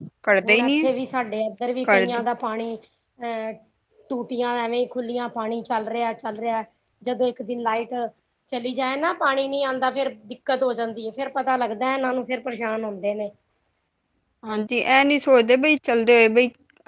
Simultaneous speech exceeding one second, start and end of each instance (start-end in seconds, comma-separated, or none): none